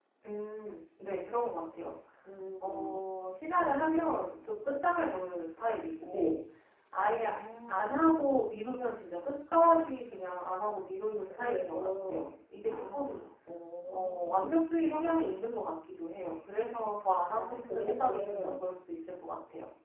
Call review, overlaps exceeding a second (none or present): present